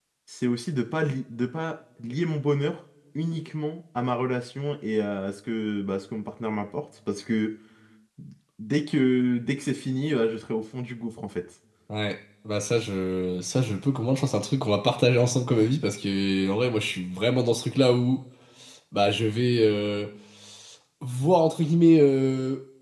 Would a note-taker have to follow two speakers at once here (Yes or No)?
No